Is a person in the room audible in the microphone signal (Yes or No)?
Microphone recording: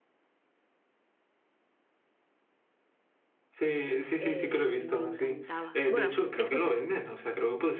Yes